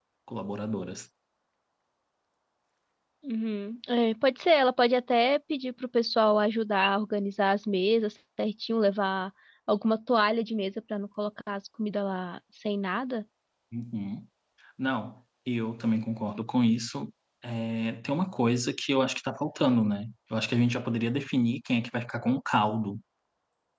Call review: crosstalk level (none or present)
none